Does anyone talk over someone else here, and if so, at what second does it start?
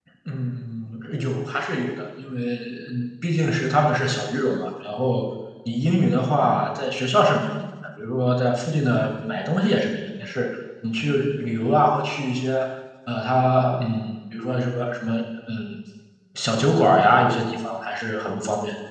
none

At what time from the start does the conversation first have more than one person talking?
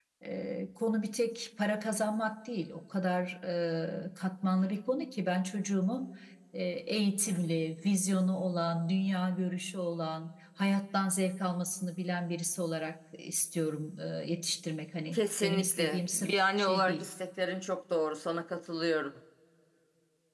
15.1 s

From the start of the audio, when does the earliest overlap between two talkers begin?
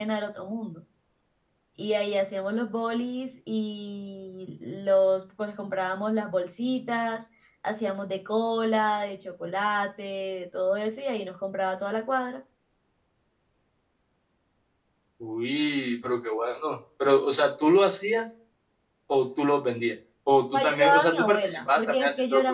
20.5 s

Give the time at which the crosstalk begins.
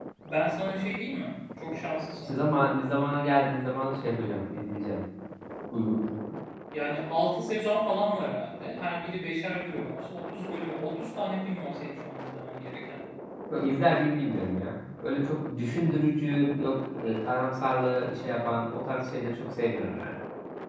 none

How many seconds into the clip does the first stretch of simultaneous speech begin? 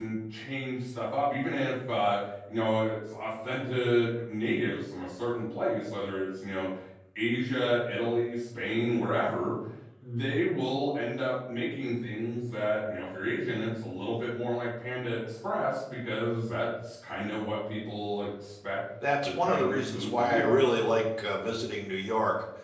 19.0 s

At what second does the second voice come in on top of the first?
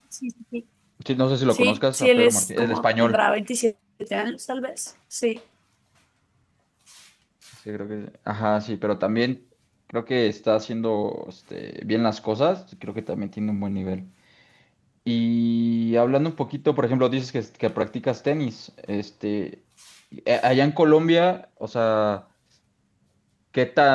1.5 s

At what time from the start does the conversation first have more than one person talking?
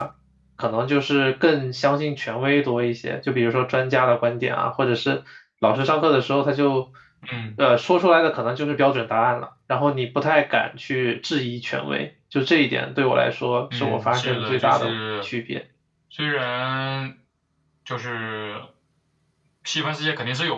13.7 s

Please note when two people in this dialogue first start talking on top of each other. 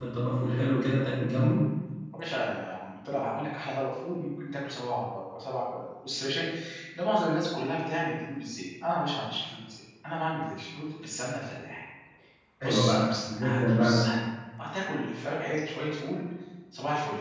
12.6 s

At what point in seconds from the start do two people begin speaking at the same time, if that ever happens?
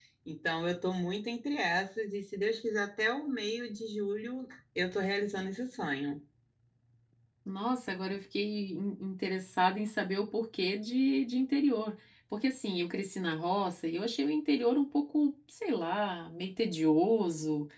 none

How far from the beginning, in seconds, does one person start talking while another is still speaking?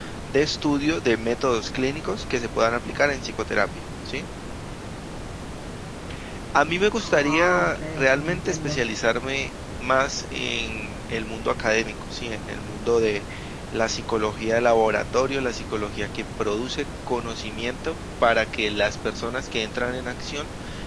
7.0 s

